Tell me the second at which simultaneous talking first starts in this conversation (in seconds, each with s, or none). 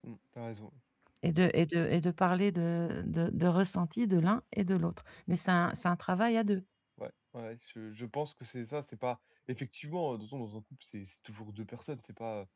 none